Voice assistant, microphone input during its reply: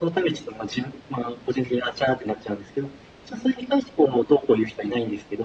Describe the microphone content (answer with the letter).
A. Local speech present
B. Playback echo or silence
B